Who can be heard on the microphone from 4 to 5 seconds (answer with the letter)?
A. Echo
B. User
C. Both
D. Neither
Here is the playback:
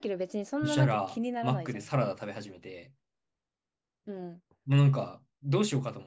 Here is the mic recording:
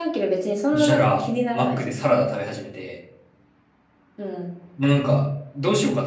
A